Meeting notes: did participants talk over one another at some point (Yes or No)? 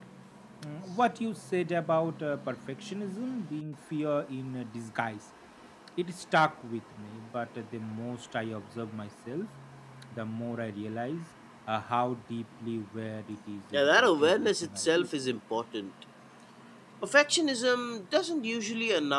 Yes